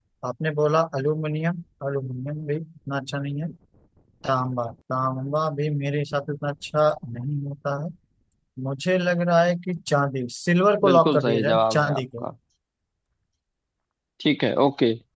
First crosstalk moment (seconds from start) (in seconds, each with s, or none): 10.8 s